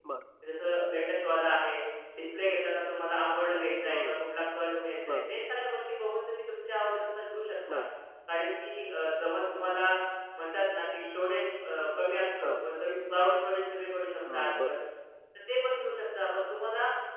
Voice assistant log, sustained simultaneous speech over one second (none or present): none